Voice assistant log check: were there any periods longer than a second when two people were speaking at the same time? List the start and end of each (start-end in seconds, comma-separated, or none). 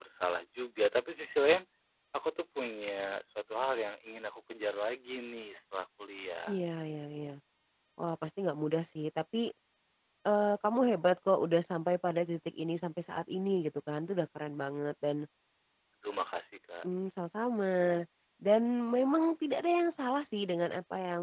none